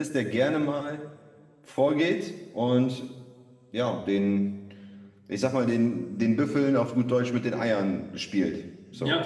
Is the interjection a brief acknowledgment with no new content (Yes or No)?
No